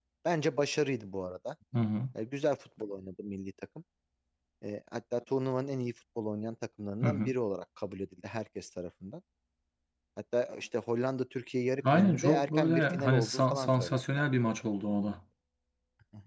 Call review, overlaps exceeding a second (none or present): present